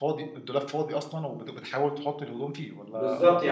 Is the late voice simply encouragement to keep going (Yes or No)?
No